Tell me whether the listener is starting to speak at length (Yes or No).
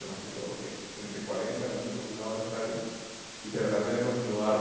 No